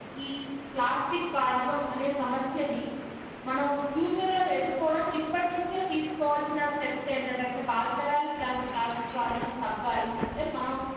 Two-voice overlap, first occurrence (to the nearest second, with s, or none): none